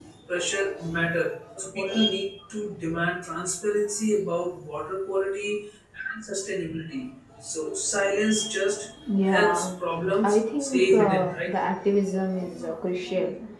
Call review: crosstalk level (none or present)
present